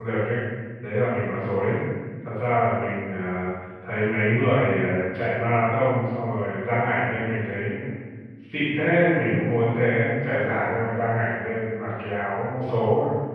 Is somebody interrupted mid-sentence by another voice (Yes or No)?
No